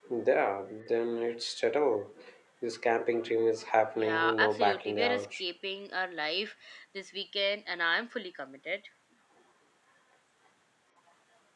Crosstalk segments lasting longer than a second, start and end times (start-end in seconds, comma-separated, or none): 4.0-5.3